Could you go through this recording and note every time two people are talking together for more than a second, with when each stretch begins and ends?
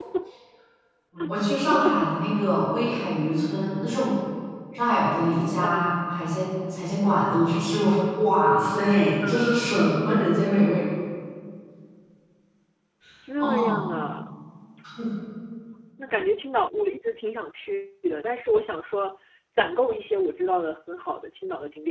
none

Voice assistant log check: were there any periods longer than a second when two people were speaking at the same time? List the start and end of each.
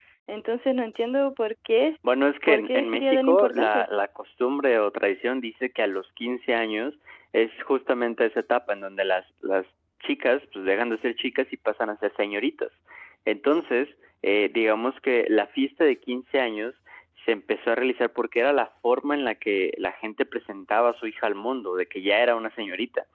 2.5-3.8

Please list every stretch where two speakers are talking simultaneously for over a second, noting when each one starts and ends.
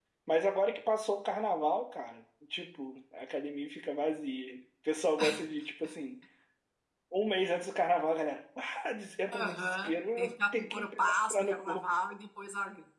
9.3-11.9

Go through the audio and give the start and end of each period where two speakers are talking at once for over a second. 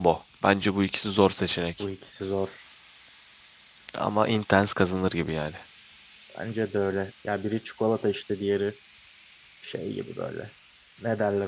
none

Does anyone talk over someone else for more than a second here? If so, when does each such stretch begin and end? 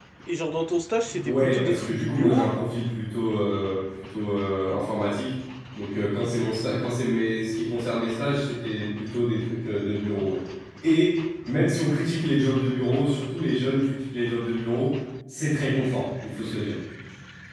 1.2-2.5

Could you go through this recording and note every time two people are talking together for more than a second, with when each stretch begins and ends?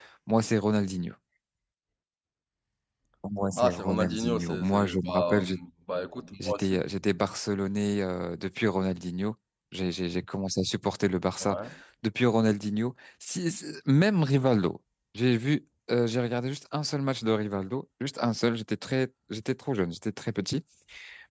3.6-5.4

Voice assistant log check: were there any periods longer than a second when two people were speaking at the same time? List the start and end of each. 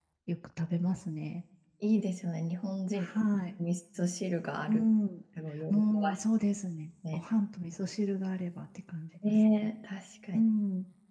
none

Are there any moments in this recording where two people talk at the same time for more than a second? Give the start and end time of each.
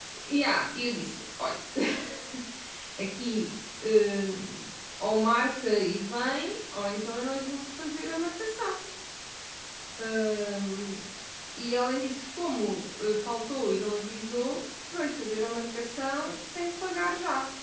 none

